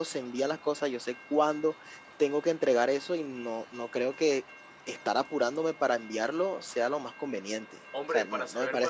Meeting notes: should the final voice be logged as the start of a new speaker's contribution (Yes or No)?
Yes